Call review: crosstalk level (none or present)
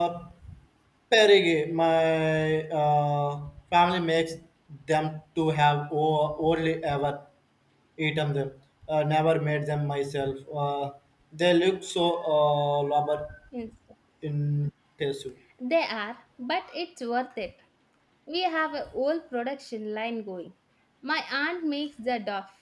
none